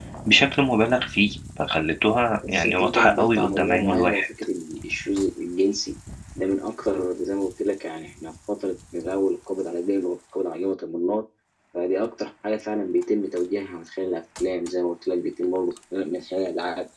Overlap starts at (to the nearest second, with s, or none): 2 s